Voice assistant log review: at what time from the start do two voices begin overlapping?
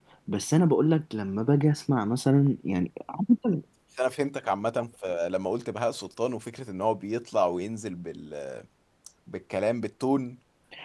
none

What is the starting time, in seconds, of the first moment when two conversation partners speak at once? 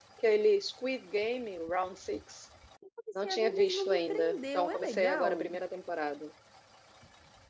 3.2 s

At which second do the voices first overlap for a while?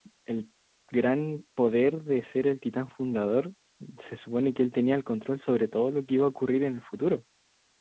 none

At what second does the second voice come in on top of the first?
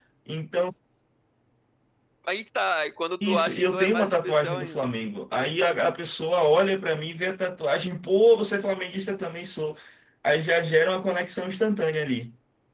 3.2 s

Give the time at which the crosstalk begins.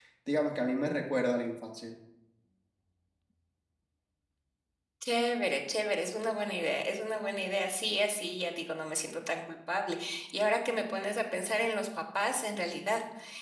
none

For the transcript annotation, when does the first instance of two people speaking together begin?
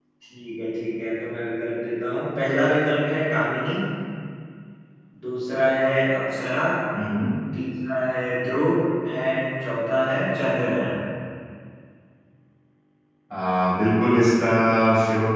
none

